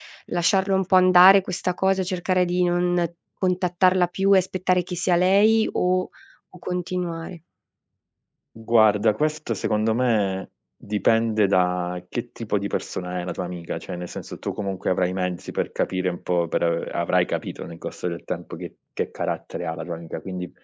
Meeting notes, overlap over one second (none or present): none